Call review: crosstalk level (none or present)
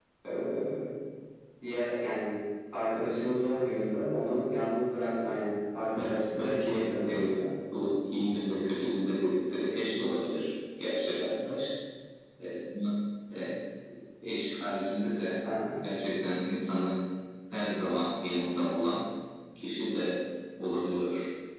present